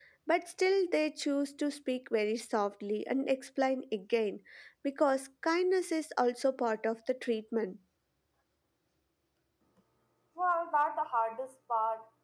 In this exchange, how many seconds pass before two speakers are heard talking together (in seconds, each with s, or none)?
none